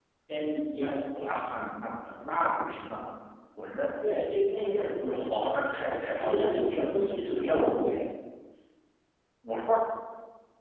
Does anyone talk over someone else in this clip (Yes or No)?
Yes